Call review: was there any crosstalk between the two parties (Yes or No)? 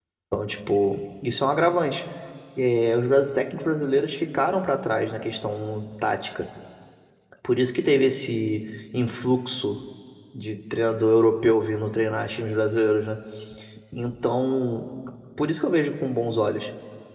No